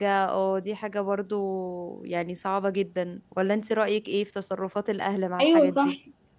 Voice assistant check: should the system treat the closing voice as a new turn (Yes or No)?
Yes